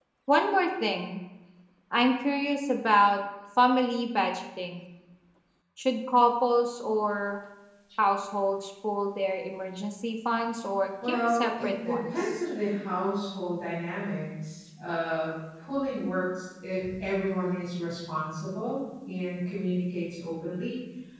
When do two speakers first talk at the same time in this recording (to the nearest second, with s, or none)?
11 s